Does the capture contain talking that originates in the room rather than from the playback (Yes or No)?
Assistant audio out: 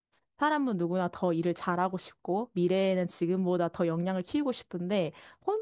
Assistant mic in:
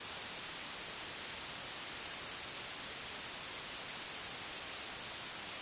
No